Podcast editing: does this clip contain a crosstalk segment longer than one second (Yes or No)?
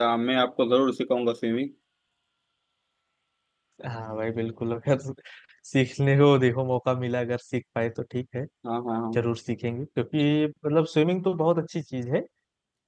No